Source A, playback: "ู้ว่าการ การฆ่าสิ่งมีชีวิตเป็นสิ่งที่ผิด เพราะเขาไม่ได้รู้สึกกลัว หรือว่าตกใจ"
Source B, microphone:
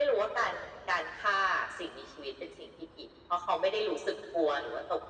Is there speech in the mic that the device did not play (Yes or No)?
No